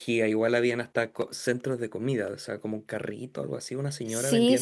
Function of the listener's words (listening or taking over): taking over